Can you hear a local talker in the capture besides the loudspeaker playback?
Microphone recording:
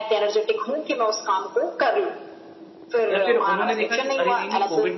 Yes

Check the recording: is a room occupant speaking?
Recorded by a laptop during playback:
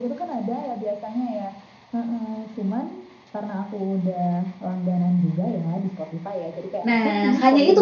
Yes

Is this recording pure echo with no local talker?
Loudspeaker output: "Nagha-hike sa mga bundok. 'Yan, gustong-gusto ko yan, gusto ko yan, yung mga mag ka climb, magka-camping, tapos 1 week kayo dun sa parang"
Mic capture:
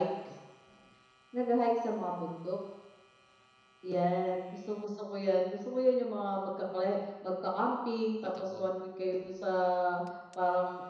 No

